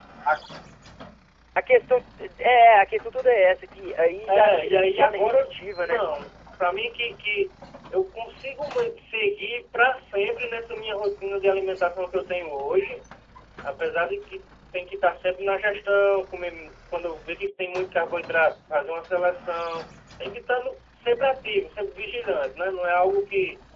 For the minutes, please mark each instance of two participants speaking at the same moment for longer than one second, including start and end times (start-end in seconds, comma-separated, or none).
4.3-6.0